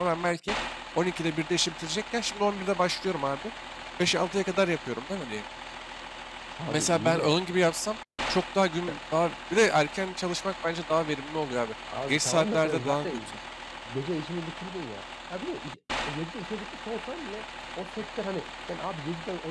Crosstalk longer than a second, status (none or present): present